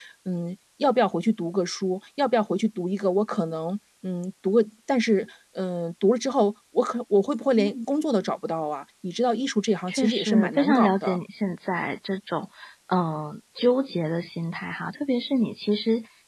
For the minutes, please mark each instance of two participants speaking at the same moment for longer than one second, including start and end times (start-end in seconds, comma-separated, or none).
9.9-11.2